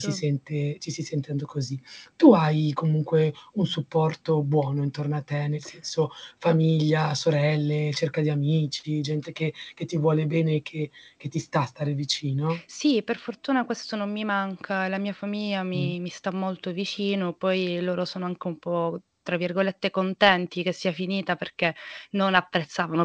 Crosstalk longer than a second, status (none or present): none